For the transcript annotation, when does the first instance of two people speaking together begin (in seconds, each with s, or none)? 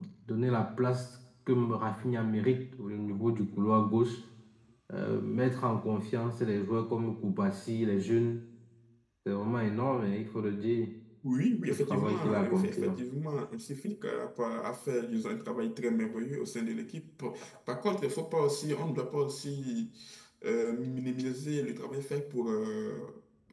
11.7 s